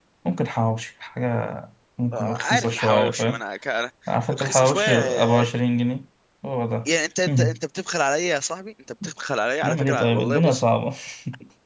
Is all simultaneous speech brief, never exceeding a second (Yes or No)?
No